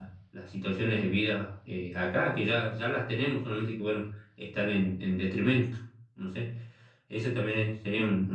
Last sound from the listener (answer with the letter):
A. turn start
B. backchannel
B